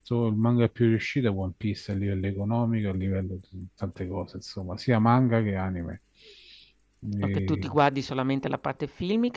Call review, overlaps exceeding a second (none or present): none